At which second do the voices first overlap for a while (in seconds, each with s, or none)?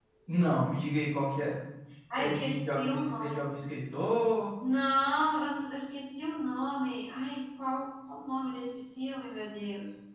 2.1 s